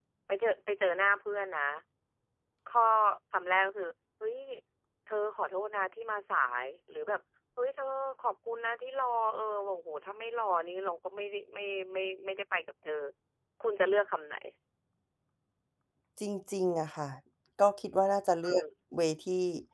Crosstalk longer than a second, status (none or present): none